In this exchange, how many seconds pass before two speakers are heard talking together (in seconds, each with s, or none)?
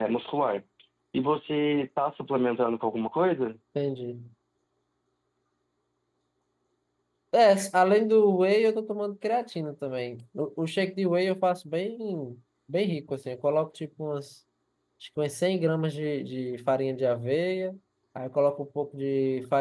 none